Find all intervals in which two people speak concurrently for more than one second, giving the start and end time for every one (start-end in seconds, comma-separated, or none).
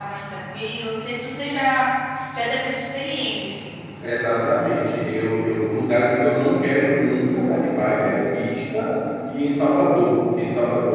none